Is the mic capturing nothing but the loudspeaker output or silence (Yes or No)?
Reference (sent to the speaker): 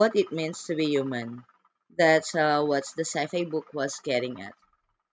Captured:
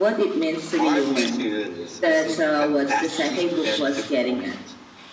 No